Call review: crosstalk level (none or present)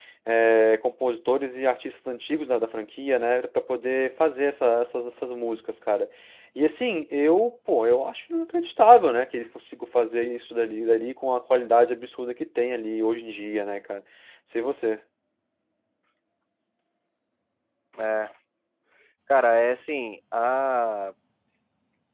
none